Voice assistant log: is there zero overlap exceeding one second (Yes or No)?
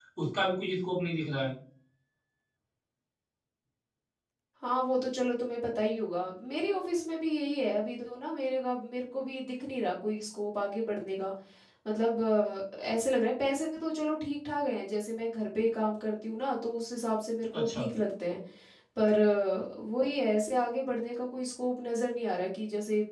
Yes